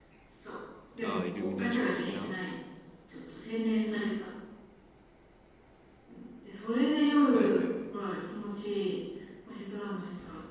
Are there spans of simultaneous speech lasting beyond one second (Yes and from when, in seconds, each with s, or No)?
Yes, from 1.0 s